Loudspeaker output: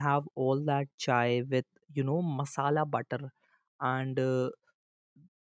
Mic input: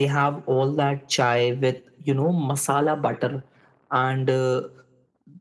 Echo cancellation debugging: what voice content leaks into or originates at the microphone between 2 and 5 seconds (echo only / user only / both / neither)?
echo only